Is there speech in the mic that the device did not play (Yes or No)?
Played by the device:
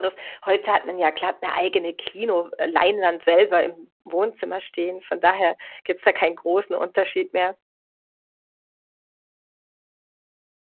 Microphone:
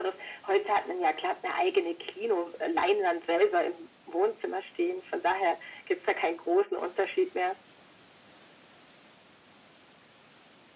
No